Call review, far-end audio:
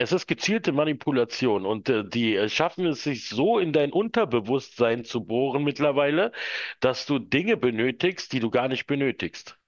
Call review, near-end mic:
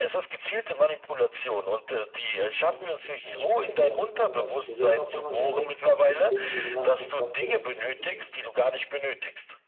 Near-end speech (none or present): present